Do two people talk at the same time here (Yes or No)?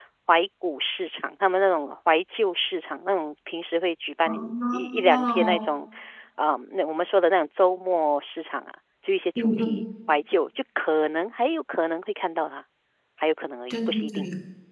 Yes